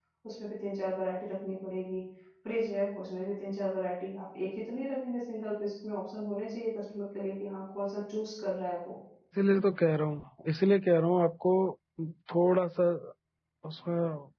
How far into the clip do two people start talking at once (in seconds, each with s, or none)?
none